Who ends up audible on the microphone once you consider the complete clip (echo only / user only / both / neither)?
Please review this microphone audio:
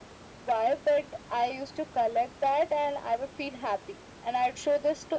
echo only